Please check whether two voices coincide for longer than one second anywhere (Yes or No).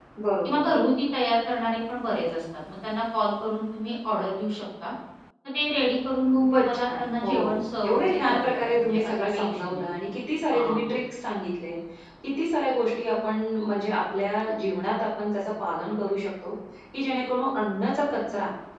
Yes